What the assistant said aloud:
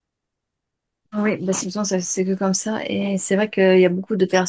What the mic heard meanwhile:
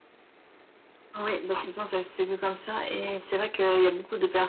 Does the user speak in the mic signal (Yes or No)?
No